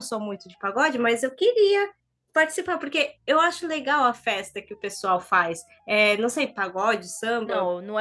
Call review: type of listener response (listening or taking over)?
taking over